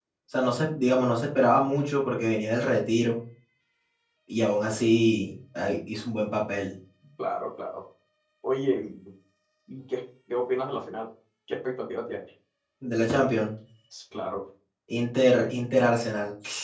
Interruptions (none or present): none